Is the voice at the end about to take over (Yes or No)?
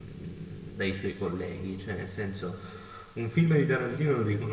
No